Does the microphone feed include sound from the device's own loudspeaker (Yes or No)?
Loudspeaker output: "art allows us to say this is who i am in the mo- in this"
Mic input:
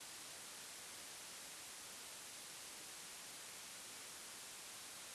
No